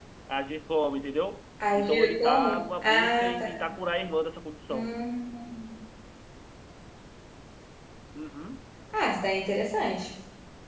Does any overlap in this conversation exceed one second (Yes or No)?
Yes